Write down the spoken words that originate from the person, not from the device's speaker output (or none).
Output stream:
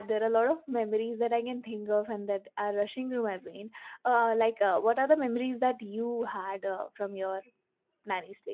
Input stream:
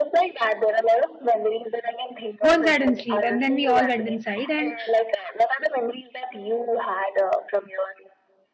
"Go inside and sleep." And then we all went inside, and